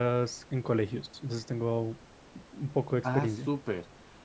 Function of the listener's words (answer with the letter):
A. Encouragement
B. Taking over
B